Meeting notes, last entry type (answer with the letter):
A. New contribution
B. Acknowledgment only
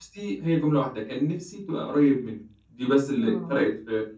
B